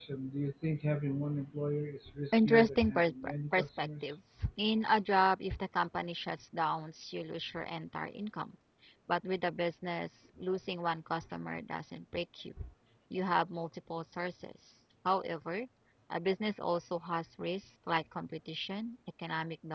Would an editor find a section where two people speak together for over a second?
Yes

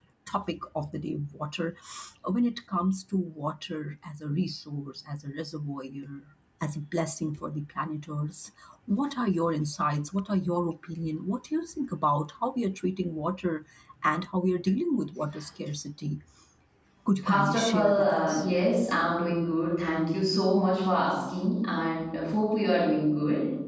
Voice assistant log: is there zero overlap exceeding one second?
No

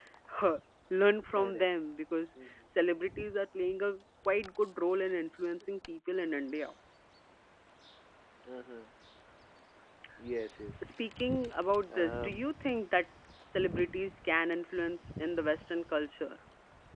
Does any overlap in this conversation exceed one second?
No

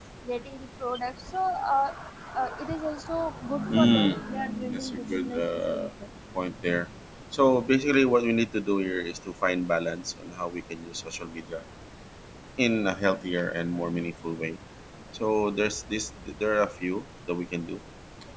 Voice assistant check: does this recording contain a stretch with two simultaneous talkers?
Yes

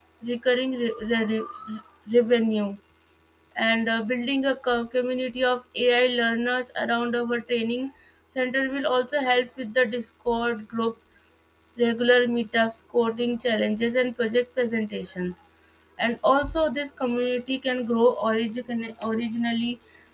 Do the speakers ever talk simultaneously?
No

